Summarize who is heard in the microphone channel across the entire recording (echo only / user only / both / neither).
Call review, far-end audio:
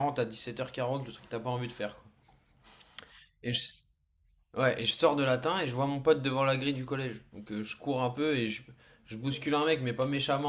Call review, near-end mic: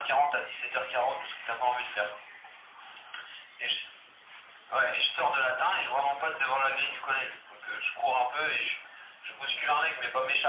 echo only